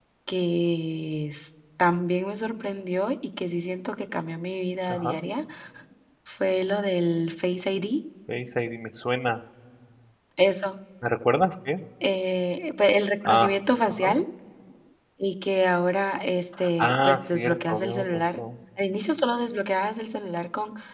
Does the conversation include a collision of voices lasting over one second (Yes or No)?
Yes